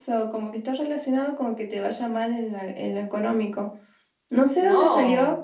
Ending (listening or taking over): listening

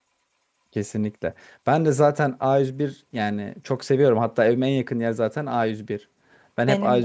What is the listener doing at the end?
listening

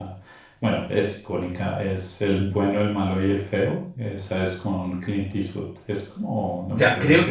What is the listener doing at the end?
taking over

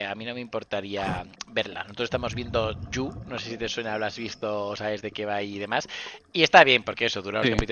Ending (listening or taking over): listening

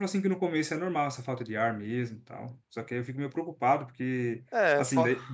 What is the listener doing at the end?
listening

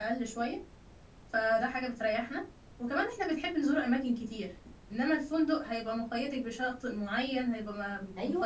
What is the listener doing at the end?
taking over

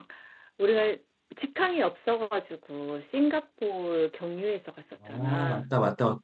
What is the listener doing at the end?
taking over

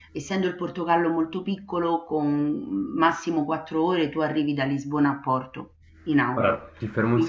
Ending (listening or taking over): taking over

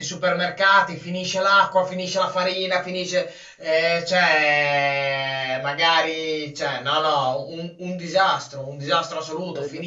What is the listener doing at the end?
listening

